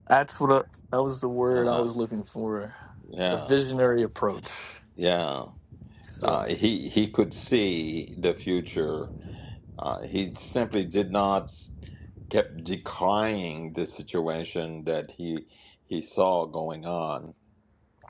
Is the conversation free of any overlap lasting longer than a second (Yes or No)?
Yes